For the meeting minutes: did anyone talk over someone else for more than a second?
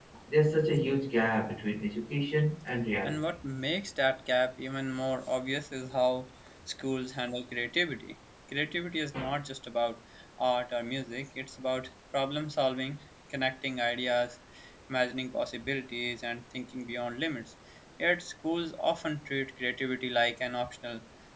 No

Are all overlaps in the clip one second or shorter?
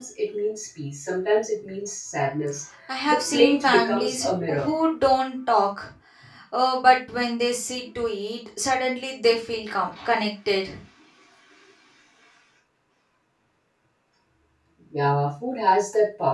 No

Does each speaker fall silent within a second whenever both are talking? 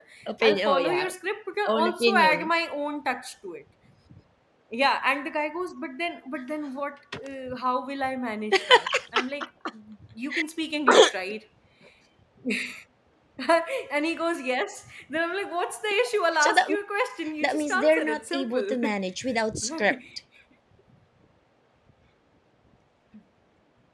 No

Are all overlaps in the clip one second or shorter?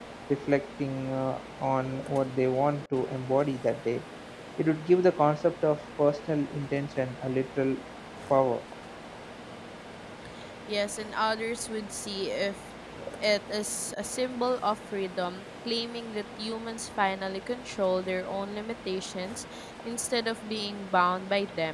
Yes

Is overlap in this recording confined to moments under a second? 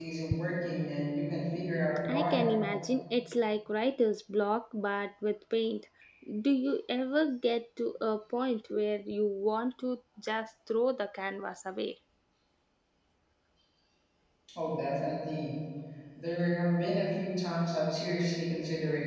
Yes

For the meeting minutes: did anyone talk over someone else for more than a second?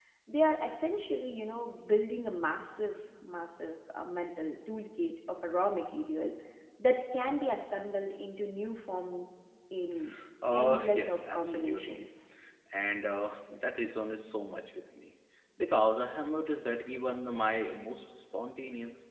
Yes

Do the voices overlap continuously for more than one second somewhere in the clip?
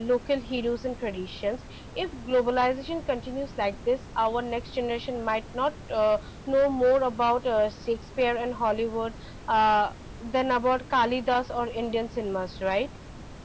No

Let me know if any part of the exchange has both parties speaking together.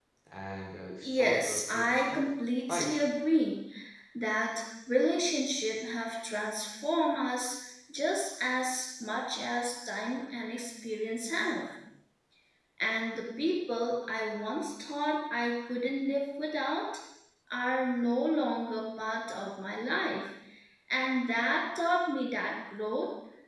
Yes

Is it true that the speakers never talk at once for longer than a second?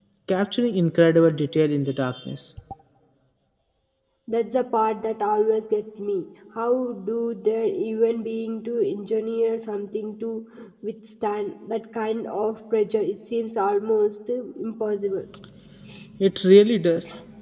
Yes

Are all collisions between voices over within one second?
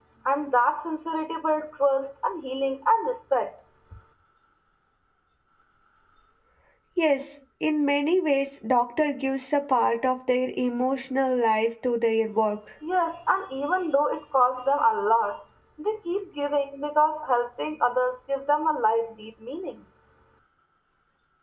Yes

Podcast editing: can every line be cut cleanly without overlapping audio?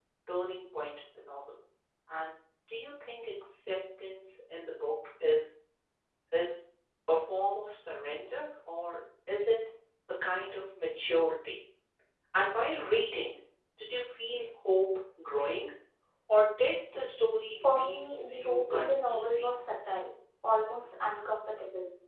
No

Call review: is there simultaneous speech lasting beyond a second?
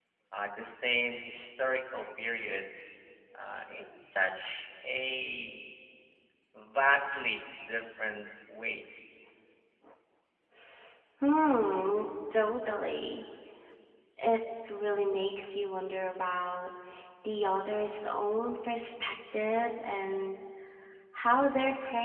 No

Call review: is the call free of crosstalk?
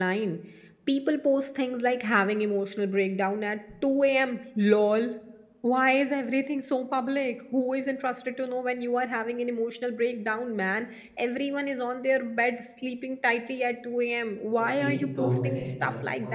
No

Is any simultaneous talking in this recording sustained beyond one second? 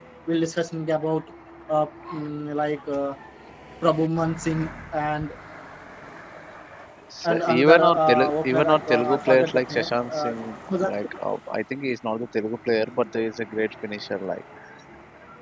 Yes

